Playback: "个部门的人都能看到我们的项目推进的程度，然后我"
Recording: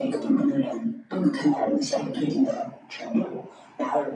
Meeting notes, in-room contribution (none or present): none